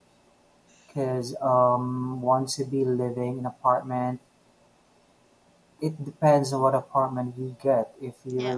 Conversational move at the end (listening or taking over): listening